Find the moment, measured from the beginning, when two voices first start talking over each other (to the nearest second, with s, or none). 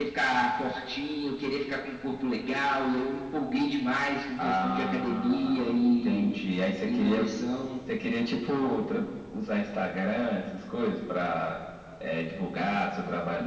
4 s